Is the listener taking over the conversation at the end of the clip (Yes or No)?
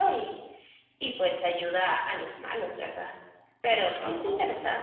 Yes